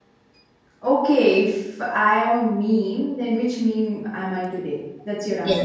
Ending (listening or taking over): taking over